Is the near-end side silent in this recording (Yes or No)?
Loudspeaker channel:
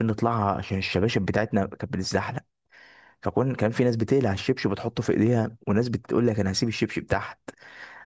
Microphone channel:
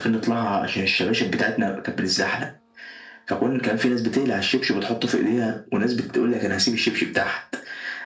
Yes